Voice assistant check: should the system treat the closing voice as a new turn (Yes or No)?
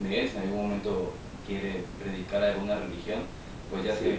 No